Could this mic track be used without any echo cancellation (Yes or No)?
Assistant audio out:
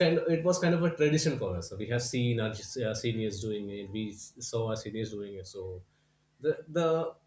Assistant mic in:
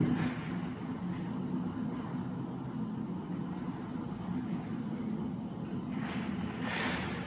Yes